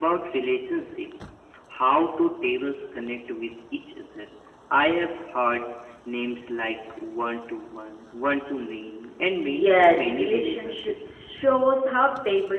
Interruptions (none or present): present